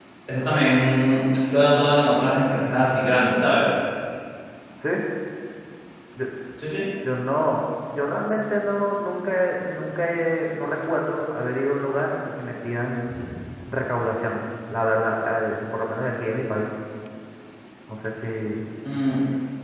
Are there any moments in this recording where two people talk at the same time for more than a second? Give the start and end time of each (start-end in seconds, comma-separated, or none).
none